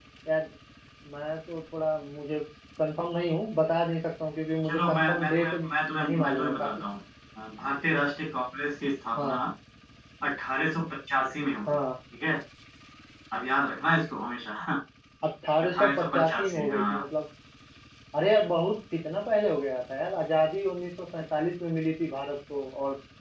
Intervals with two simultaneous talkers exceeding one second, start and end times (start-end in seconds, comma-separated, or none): 4.6-6.7, 15.6-17.0